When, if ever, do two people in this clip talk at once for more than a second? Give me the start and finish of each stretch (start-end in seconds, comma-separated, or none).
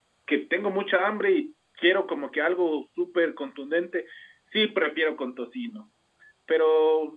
none